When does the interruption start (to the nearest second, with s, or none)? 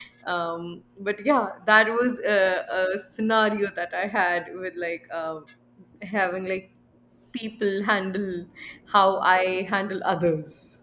none